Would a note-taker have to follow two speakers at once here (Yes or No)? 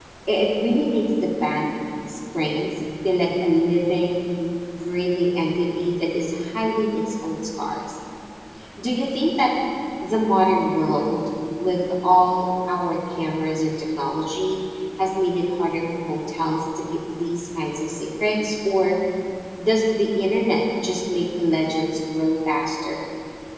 No